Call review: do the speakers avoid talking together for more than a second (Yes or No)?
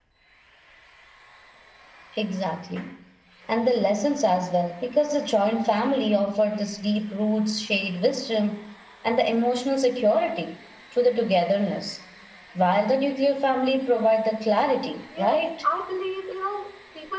Yes